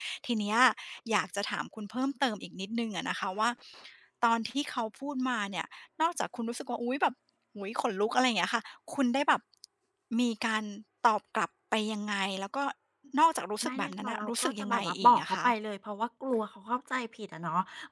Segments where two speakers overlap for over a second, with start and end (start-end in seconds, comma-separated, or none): 13.6-15.4